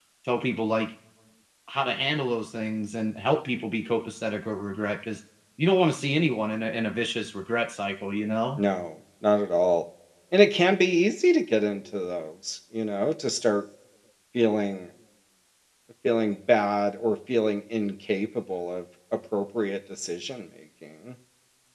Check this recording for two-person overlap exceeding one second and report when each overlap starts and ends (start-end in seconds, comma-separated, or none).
none